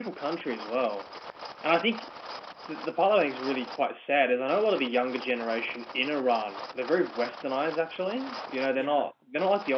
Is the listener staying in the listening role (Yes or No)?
Yes